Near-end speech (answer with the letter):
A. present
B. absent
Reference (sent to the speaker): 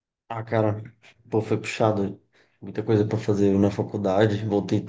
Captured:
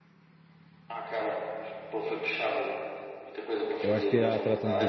A